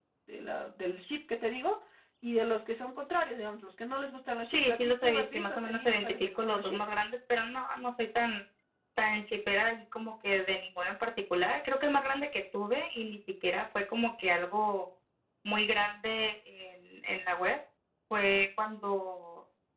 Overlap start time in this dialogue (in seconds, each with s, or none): 4.5 s